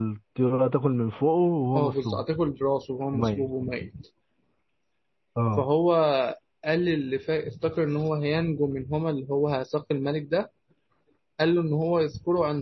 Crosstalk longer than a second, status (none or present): none